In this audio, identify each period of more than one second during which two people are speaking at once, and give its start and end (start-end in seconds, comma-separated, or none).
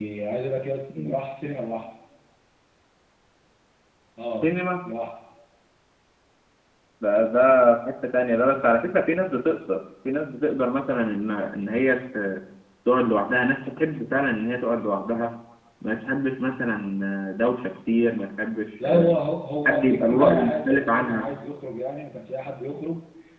19.6-21.3